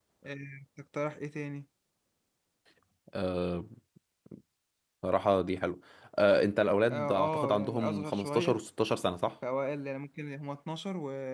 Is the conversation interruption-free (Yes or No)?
No